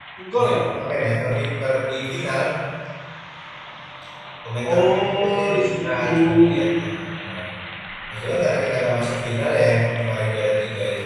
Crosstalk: present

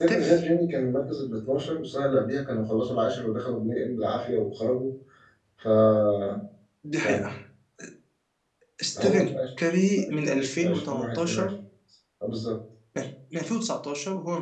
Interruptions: present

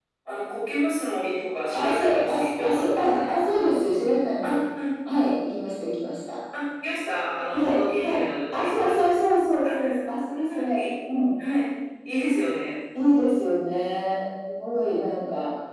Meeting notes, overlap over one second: present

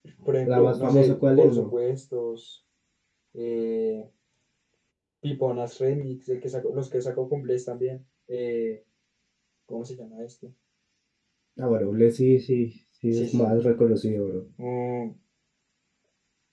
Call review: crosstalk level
present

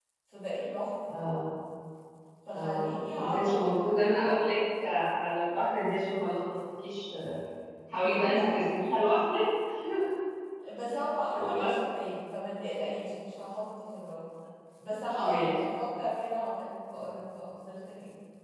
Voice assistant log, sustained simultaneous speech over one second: present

